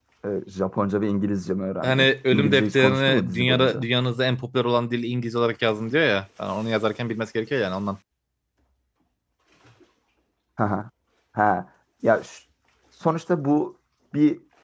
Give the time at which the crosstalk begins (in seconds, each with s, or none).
1.8 s